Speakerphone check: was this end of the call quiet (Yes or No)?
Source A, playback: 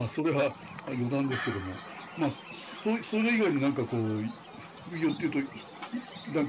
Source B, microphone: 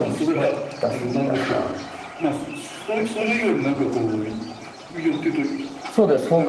No